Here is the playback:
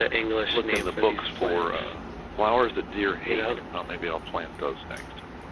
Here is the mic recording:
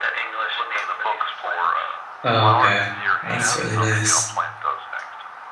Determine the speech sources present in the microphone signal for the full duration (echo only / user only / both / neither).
both